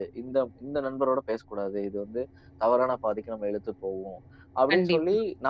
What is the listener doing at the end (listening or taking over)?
listening